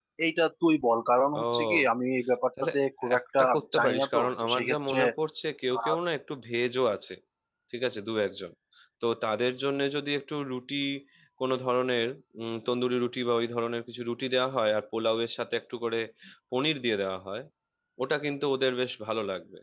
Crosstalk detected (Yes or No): Yes